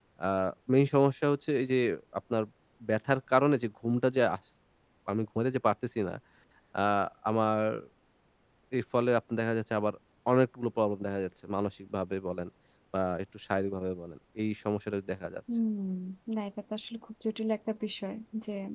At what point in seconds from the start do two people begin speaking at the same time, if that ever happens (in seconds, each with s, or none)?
none